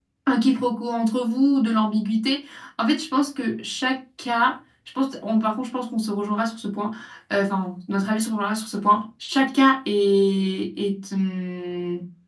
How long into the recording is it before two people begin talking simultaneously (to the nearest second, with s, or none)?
none